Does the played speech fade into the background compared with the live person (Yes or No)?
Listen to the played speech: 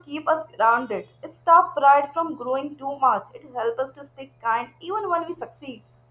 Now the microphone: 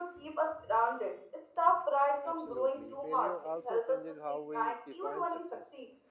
No